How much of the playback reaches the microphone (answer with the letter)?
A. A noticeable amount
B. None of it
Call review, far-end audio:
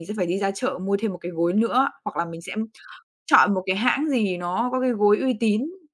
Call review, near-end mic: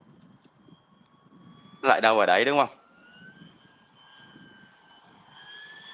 B